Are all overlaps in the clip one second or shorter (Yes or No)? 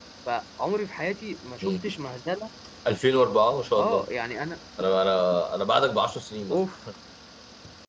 Yes